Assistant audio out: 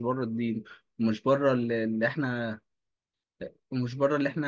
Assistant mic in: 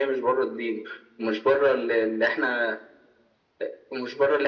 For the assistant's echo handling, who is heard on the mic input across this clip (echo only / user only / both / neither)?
echo only